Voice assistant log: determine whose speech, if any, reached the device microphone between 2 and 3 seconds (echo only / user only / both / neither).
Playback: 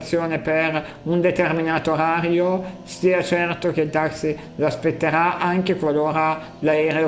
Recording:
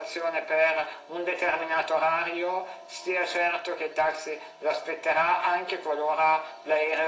echo only